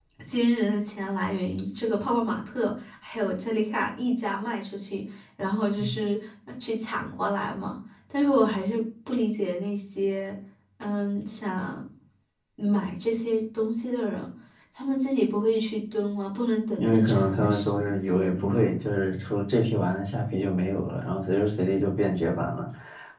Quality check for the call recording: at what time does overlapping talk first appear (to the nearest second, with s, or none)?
17 s